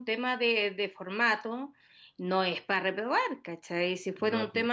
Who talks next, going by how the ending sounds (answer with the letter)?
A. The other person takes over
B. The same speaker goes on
B